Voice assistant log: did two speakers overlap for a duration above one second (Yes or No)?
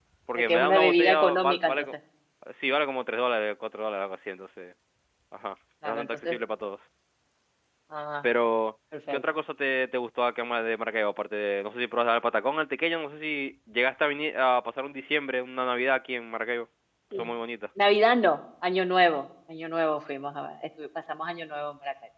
Yes